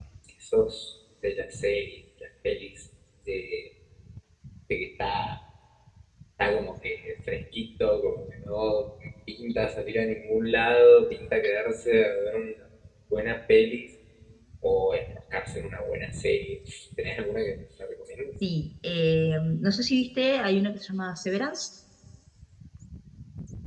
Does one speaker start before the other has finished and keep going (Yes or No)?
No